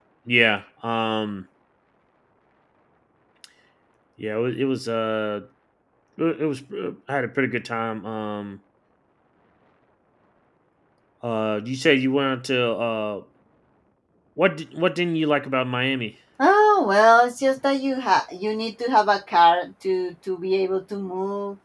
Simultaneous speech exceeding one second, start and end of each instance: none

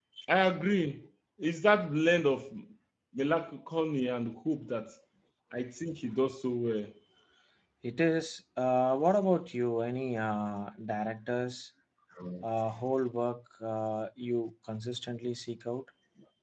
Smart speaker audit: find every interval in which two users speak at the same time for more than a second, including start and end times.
none

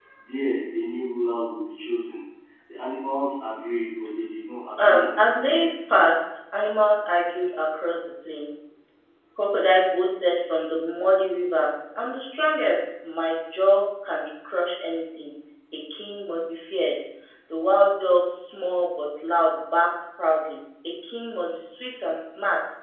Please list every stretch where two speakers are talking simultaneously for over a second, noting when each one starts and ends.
4.8-6.0

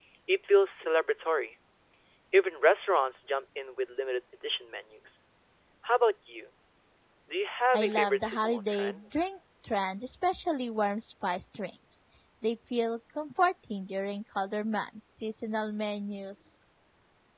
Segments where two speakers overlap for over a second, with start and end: 7.7-9.0

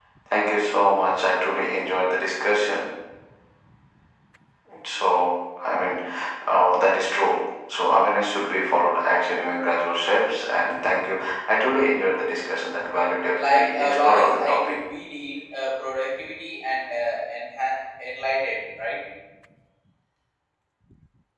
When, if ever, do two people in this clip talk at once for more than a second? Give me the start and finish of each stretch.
13.3-14.8

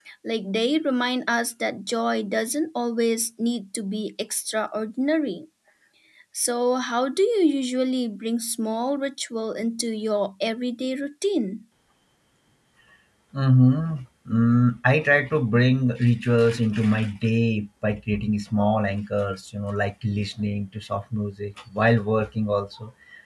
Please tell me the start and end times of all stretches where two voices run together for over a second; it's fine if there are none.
none

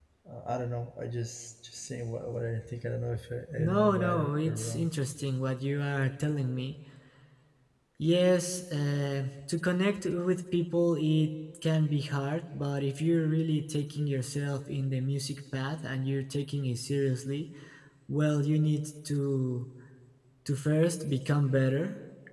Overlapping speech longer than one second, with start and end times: 3.6-4.9

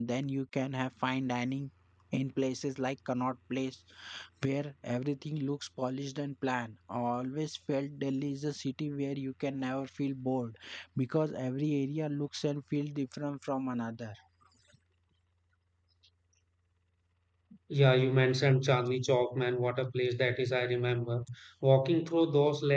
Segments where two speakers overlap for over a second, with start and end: none

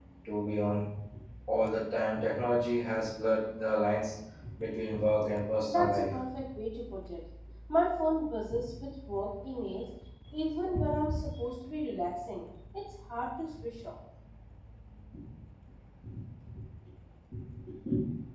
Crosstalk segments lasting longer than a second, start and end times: none

